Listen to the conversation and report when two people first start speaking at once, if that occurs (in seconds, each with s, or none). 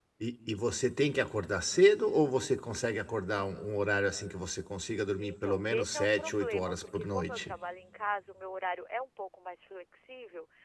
5.2 s